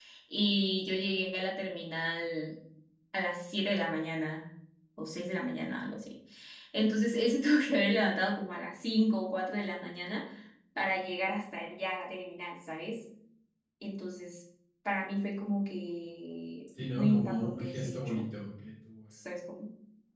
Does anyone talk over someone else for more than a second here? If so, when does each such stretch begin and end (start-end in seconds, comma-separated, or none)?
16.9-18.3